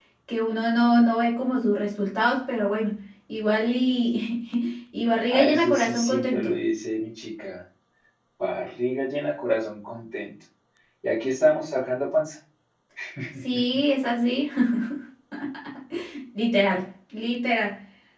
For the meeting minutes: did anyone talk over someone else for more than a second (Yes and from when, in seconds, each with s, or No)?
Yes, from 5.3 s